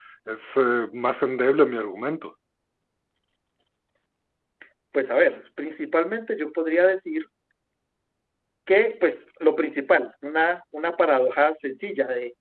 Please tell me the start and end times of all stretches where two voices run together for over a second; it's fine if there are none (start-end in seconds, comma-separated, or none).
none